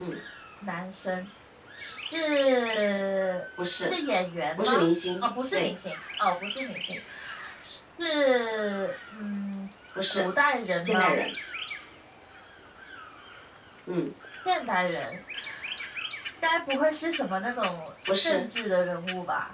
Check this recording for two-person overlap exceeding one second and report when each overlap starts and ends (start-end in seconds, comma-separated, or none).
none